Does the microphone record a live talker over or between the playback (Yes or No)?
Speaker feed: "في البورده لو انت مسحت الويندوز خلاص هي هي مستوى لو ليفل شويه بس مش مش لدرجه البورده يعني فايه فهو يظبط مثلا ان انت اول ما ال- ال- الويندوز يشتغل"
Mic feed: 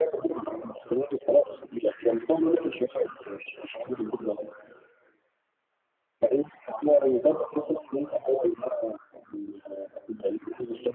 No